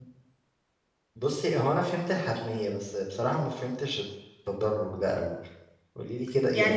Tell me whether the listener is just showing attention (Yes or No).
No